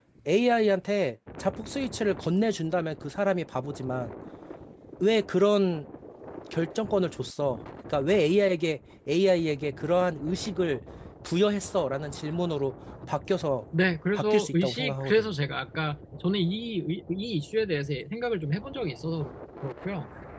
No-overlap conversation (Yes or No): No